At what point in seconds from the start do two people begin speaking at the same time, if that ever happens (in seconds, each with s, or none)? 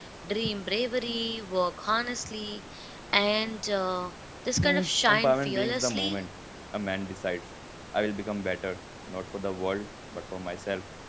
4.6 s